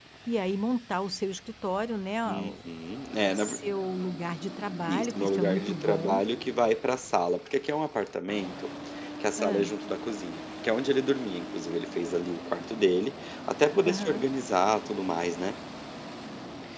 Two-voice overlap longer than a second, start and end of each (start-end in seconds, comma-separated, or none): 4.9-6.2